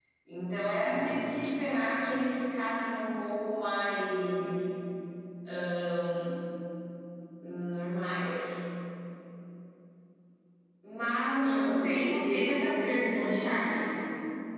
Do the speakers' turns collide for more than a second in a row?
Yes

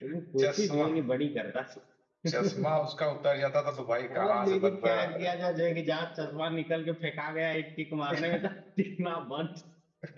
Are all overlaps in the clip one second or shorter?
No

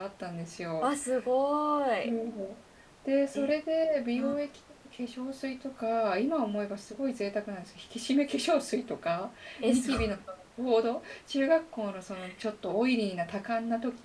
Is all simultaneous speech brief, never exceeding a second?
Yes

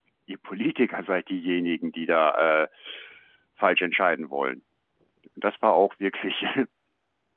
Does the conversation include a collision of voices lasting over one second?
No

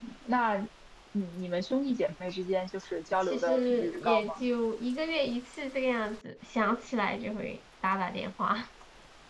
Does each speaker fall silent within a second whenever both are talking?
No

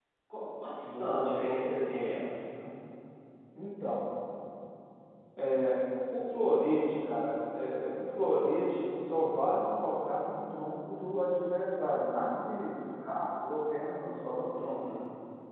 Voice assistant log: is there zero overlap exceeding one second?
No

